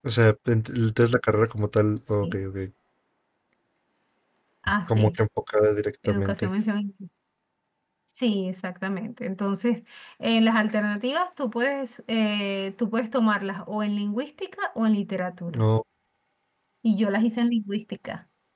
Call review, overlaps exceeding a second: none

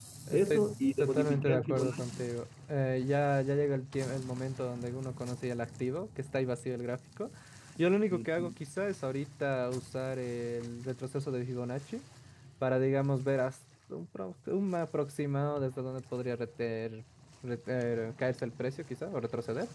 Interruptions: present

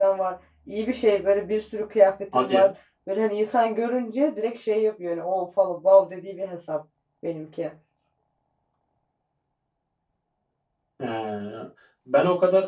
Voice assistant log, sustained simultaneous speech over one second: none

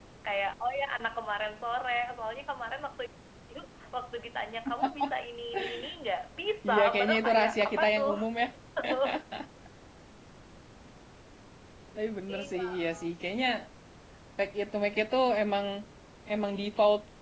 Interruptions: present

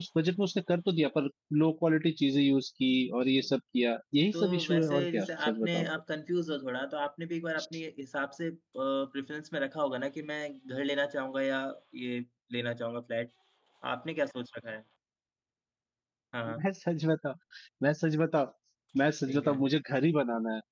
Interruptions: present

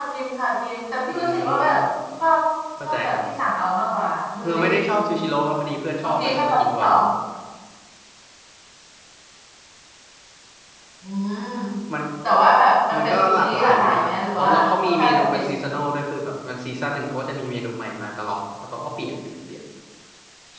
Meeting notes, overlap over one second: present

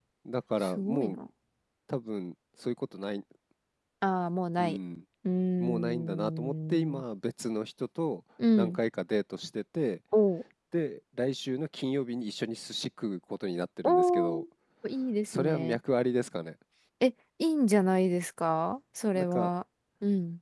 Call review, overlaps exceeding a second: present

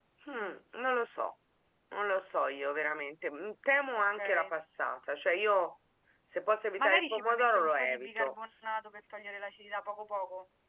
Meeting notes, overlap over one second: present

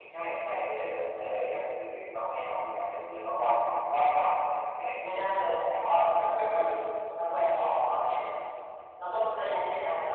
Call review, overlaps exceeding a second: none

